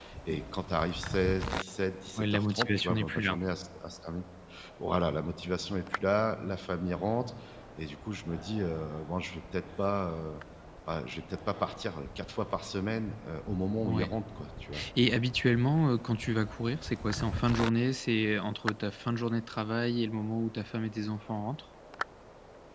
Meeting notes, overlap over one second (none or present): present